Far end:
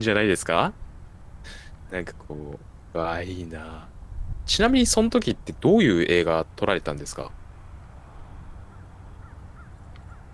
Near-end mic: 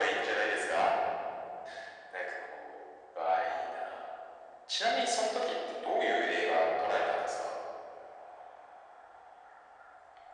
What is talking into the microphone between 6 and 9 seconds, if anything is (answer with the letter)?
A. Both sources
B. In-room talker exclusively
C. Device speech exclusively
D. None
C